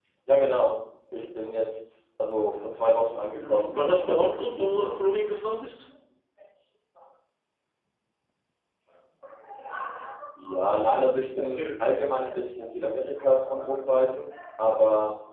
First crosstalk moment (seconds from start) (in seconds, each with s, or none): 3.3 s